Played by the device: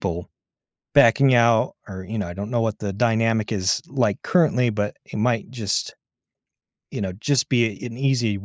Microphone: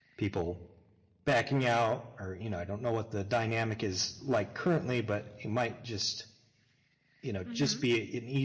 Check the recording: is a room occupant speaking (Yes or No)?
Yes